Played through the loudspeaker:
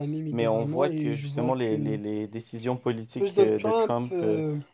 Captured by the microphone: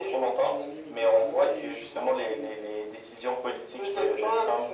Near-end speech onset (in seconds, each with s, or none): none